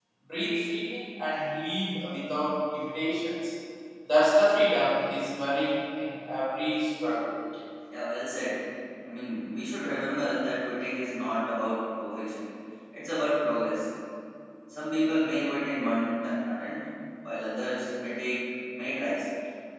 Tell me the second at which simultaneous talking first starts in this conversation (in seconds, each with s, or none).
none